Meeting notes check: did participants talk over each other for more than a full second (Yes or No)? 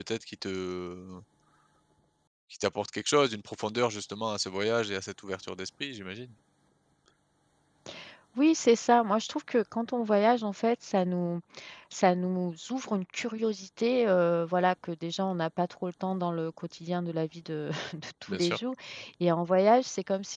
No